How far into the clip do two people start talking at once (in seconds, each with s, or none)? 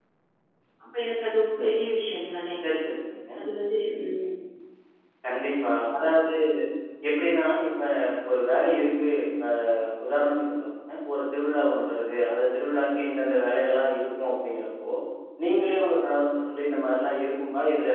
none